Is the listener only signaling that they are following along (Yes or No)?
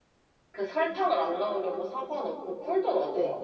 No